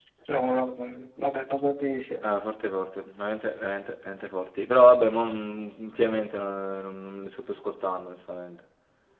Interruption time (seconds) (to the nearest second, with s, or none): none